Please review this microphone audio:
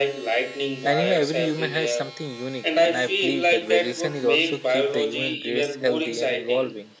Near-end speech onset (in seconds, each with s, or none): 0.8 s